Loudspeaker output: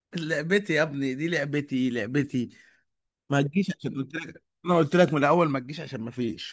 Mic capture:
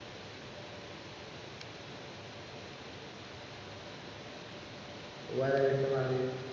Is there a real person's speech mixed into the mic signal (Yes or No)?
Yes